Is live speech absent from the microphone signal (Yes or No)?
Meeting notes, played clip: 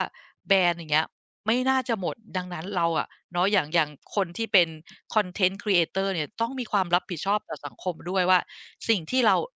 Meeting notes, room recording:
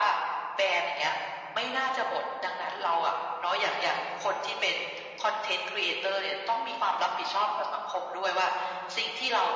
Yes